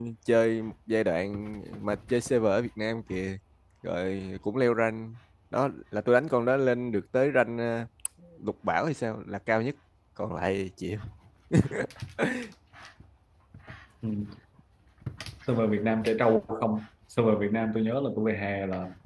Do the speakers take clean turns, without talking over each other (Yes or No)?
Yes